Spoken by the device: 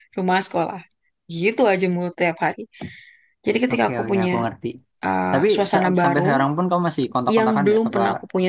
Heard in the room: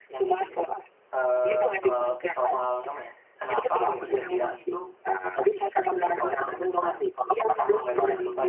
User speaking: Yes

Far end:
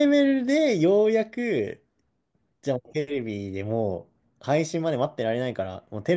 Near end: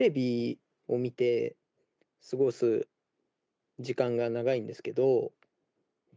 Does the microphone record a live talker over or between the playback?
Yes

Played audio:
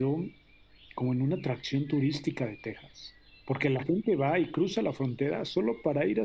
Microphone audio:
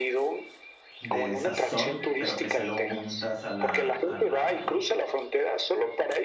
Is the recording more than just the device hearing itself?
Yes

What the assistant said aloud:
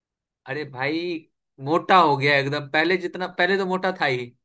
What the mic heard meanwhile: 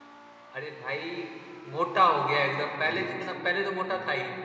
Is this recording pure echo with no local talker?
No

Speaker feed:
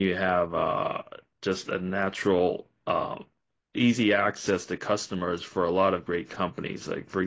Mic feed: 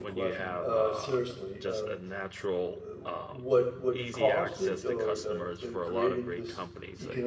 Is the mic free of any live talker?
No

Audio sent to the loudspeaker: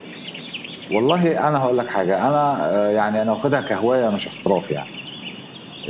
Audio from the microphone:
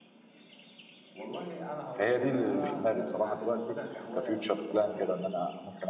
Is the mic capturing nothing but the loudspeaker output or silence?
No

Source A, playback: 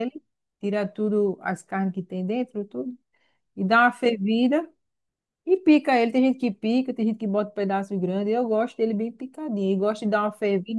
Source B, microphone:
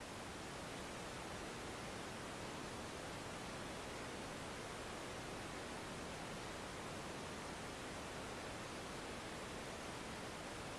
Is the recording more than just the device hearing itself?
No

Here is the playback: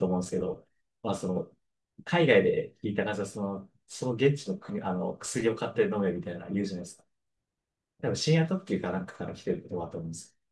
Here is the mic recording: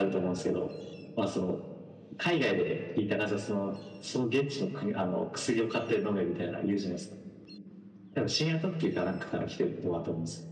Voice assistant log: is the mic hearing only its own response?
Yes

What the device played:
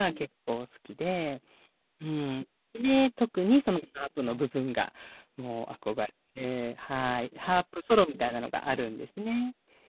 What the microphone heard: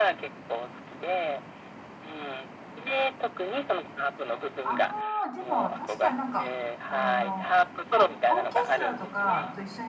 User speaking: Yes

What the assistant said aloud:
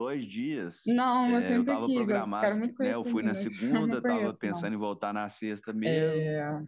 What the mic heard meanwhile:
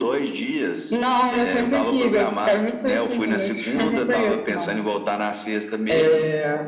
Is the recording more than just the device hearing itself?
No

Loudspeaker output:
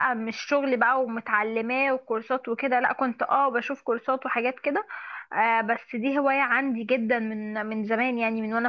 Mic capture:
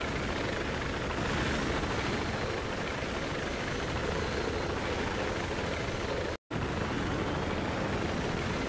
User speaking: No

